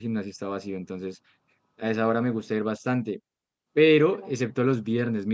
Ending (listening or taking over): listening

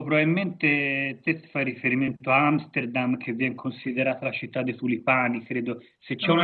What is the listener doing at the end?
listening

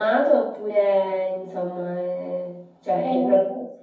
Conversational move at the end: taking over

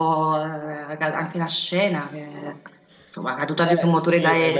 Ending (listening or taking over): taking over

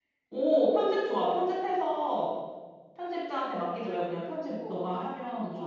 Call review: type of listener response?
taking over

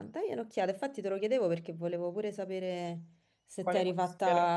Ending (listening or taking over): taking over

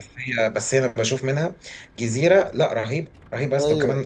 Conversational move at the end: listening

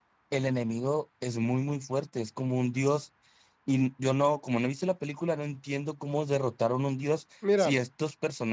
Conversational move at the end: listening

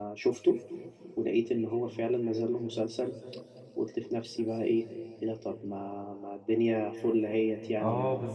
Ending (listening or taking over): taking over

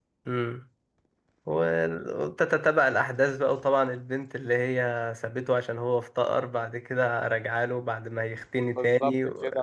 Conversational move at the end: taking over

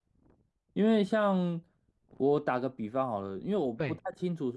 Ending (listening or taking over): listening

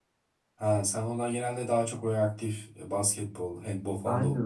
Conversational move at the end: taking over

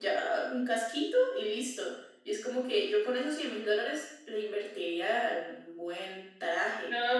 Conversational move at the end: taking over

